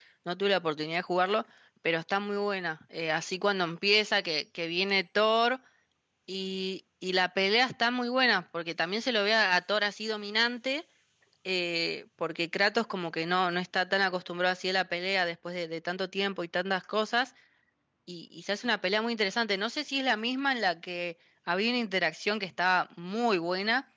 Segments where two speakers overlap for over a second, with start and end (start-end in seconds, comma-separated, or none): none